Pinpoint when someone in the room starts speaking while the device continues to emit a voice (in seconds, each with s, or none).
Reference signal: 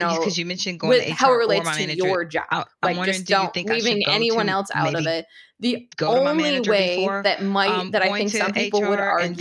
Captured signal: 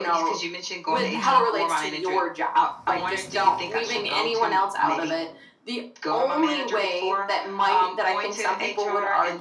0.9 s